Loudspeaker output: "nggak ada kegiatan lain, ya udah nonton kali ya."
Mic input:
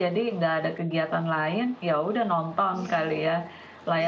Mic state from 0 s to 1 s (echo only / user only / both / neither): echo only